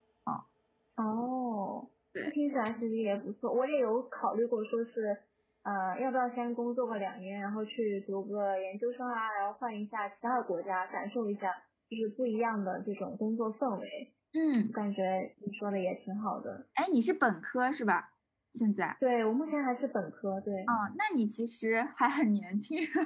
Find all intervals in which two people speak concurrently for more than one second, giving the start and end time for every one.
none

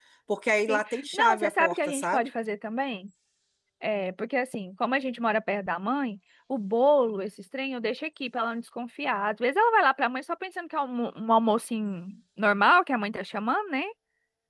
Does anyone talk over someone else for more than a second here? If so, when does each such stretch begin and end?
0.7-2.3

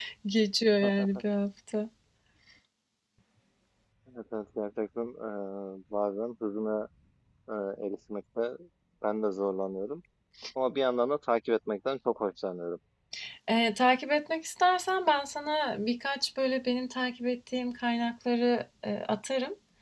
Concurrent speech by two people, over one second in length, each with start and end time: none

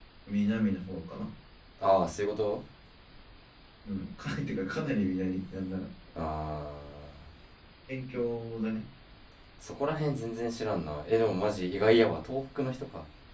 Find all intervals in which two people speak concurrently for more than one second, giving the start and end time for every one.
none

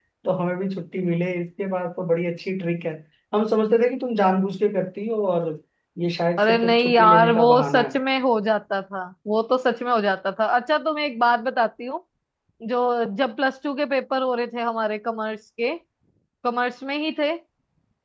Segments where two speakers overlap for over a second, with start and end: 6.4-7.9

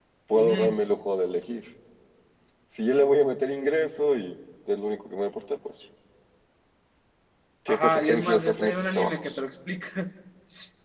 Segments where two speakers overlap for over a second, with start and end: 7.7-9.4

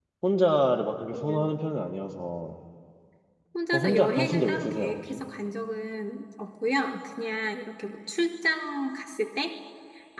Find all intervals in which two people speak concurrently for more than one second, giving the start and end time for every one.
3.7-5.2

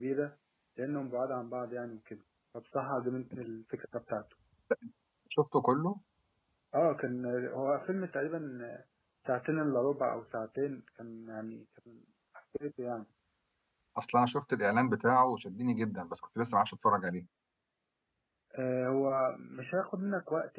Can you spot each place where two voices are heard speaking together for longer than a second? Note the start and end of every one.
none

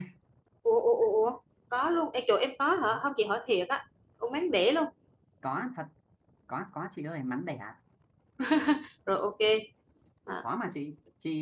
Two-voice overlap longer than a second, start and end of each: none

